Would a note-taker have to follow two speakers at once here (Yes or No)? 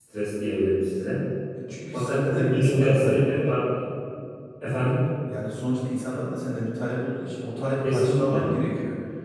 Yes